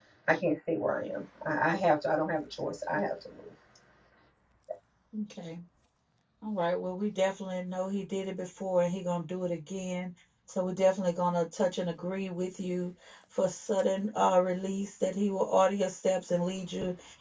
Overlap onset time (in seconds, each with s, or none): none